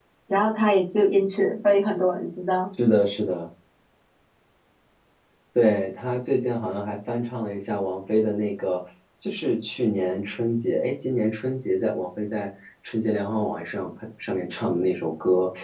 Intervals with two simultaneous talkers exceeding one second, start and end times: none

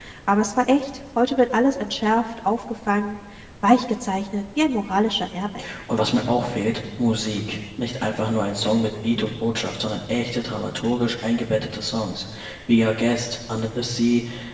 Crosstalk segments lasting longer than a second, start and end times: none

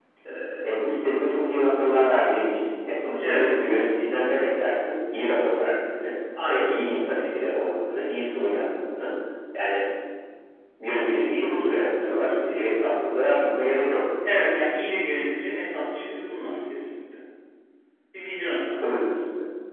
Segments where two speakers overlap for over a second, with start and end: none

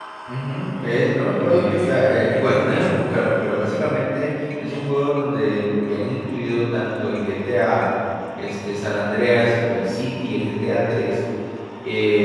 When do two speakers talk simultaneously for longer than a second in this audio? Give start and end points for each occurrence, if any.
1.4-3.0

